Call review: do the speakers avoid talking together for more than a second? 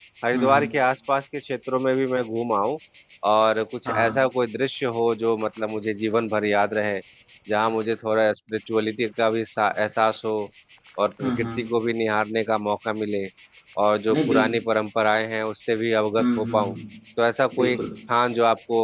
Yes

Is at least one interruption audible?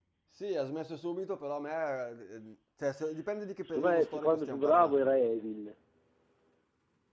Yes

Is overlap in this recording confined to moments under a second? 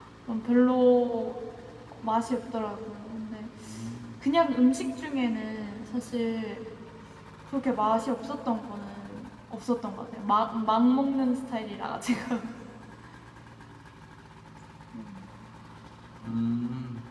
Yes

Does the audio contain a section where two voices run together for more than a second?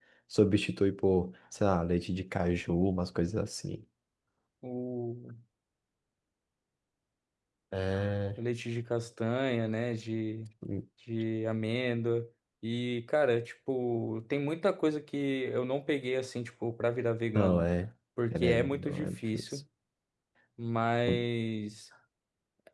Yes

